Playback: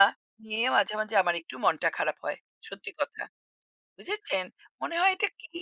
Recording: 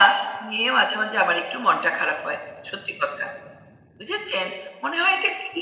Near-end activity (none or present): none